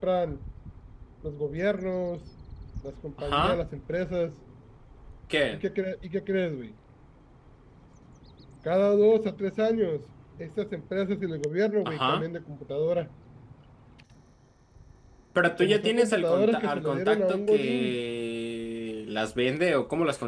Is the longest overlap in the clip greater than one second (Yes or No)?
Yes